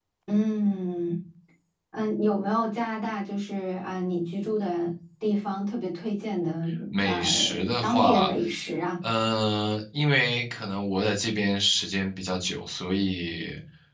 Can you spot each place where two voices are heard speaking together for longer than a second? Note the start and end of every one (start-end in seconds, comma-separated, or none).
7.0-8.3